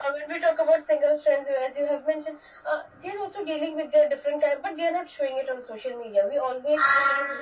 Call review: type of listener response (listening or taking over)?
listening